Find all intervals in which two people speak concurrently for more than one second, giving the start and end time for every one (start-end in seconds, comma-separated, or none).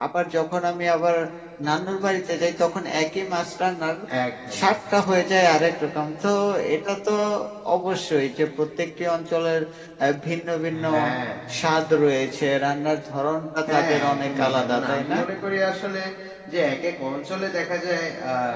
13.7-15.2